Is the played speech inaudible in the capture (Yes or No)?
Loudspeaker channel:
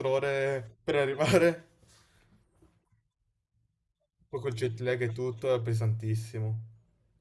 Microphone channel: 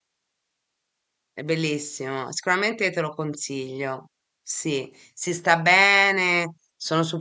Yes